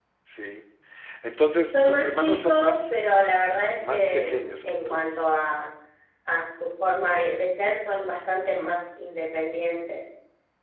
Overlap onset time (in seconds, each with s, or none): 1.7 s